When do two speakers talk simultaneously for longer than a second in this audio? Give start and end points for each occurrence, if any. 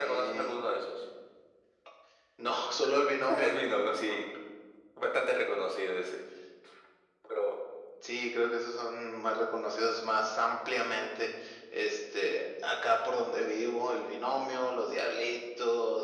none

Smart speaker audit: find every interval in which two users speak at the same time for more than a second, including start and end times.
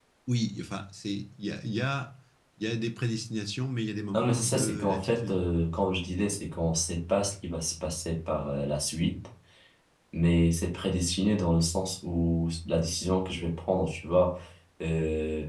4.1-5.4

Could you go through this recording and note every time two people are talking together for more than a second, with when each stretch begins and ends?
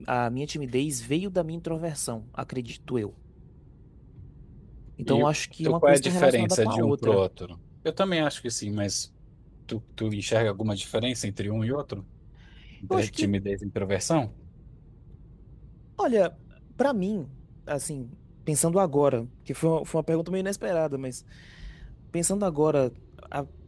5.6-7.2

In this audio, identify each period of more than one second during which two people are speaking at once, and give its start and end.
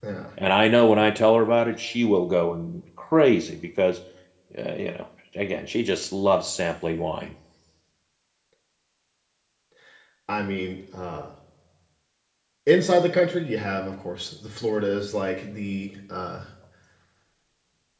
none

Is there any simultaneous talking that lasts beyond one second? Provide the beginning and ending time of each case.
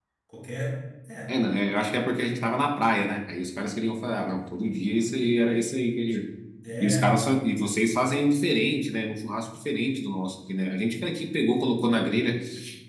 none

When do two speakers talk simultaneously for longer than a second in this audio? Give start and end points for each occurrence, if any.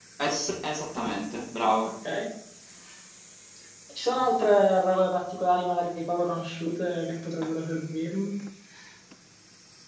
none

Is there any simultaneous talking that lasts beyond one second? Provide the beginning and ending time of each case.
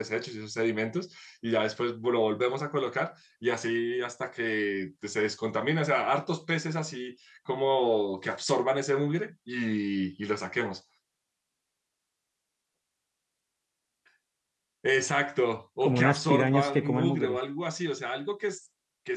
15.8-17.4

